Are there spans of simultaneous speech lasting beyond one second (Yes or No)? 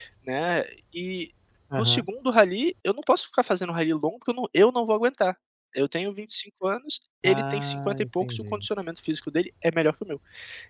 Yes